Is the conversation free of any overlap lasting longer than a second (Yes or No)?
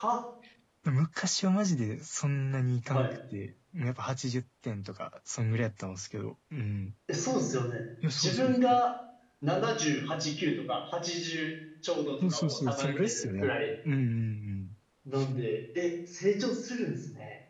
No